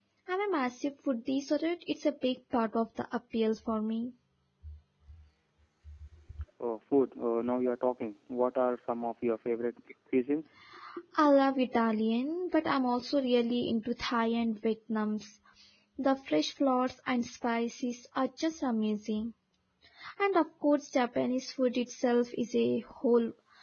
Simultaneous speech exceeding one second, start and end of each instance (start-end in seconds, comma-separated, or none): none